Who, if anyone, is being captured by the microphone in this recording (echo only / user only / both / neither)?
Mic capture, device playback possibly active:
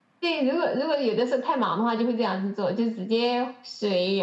echo only